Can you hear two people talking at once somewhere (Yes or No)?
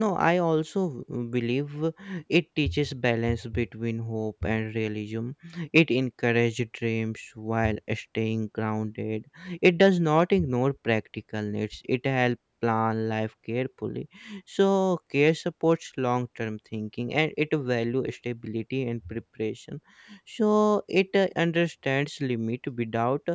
No